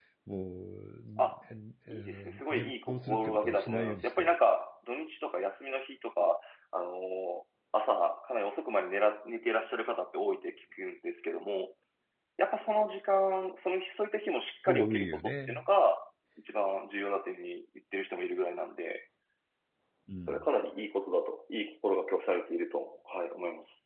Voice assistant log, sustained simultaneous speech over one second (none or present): present